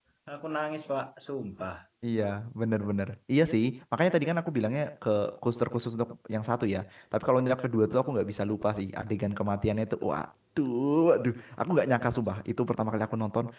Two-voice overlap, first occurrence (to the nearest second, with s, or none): none